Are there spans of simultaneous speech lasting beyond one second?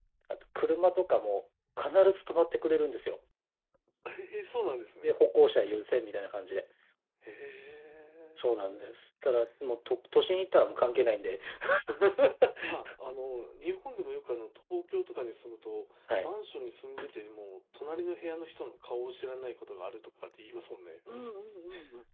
No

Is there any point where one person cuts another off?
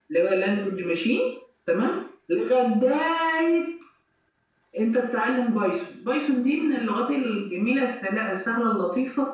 No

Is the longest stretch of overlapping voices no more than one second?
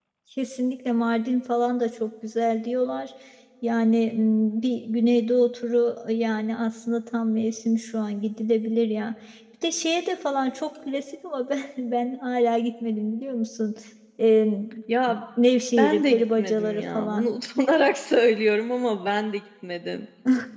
No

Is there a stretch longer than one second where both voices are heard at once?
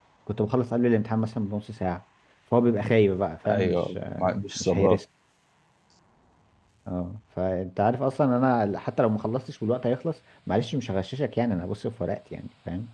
Yes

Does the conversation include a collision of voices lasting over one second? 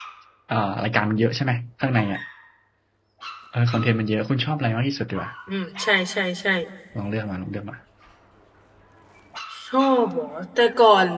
No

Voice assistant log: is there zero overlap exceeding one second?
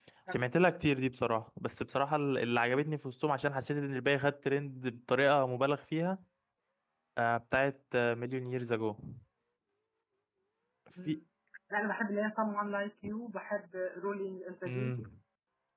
Yes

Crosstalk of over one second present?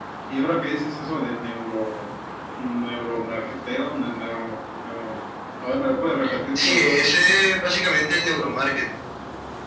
No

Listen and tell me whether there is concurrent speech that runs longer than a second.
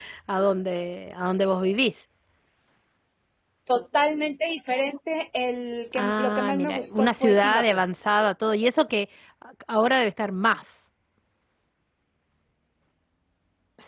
Yes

